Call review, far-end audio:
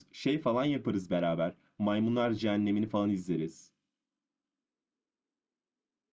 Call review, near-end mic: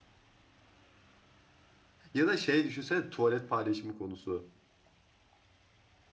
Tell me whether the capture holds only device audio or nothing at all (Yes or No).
No